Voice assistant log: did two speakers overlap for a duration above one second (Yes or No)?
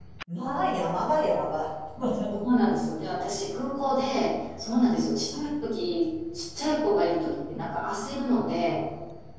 No